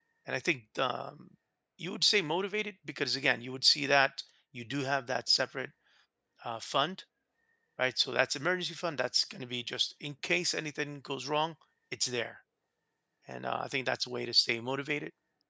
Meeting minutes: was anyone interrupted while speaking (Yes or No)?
No